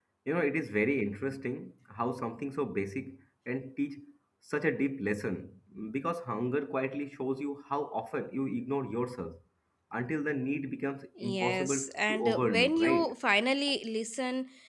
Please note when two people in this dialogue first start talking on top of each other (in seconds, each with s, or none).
11.2 s